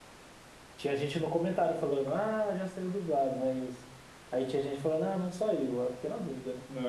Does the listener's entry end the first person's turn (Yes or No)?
Yes